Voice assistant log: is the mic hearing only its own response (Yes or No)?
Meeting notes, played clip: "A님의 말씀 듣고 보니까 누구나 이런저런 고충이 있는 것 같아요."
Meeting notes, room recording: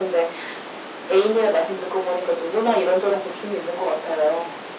Yes